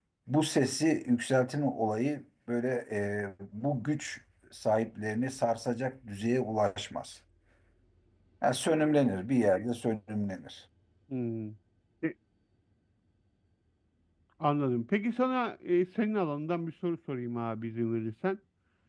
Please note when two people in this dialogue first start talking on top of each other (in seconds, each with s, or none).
none